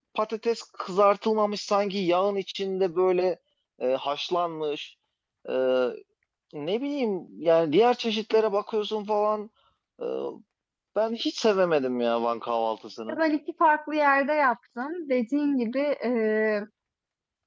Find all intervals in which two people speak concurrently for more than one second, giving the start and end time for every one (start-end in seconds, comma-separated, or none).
none